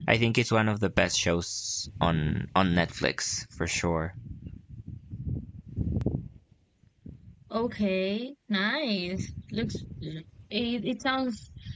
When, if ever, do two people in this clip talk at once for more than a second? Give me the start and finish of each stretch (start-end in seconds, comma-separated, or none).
none